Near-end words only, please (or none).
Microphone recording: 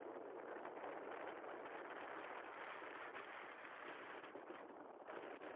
none